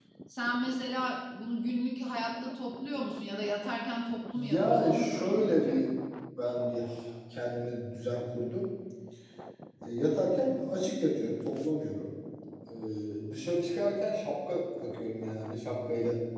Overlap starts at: 4 s

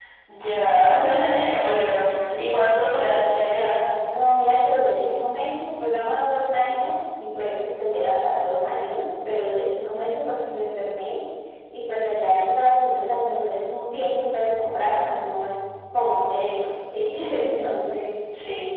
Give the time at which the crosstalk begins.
none

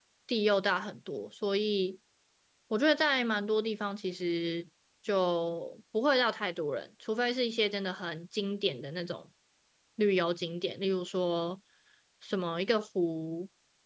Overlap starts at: none

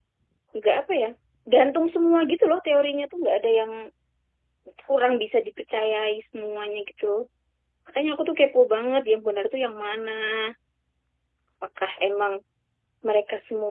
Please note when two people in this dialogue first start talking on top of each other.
none

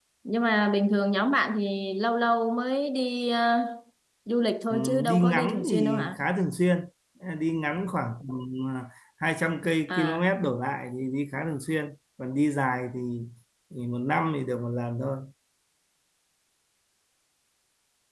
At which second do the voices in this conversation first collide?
5 s

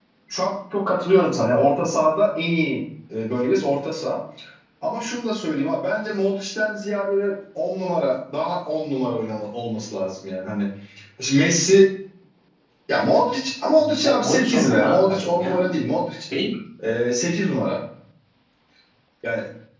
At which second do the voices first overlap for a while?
14 s

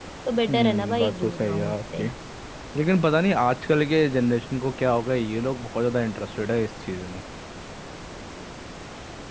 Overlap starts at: 1 s

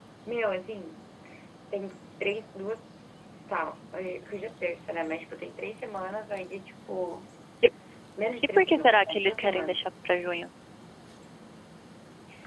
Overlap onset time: 9 s

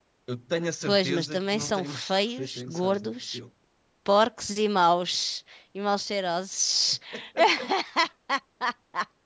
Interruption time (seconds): 1 s

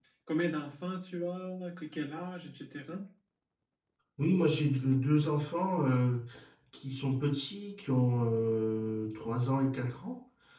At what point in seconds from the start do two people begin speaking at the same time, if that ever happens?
none

